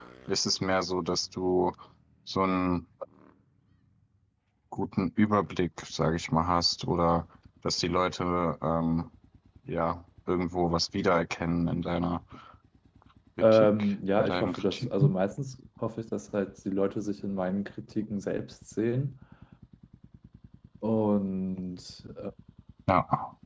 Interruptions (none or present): present